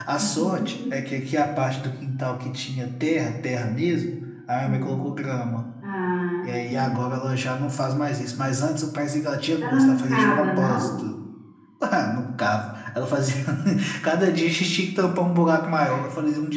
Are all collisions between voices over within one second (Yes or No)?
No